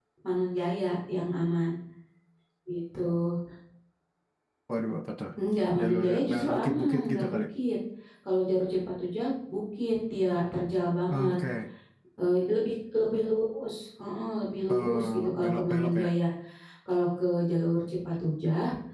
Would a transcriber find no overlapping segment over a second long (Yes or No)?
No